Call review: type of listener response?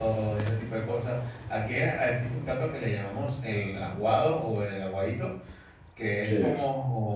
listening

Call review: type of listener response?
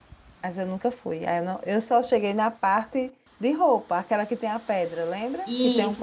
taking over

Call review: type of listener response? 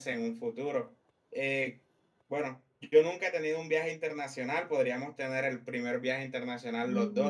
taking over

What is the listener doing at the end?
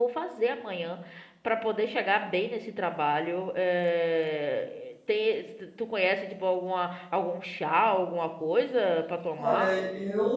taking over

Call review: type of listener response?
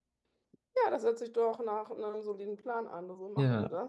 taking over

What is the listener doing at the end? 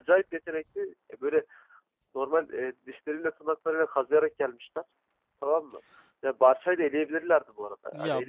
taking over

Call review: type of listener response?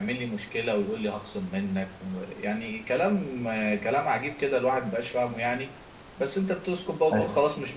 listening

